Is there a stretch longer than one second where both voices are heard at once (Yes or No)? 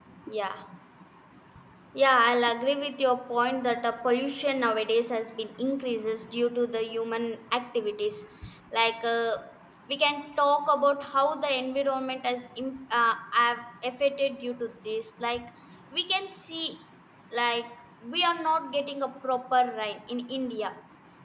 No